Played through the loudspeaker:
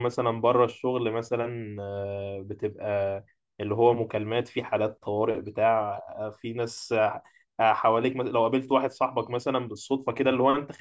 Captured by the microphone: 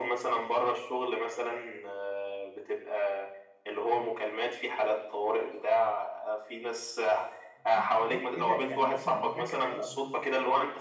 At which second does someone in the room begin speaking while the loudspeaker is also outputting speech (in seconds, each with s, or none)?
7.7 s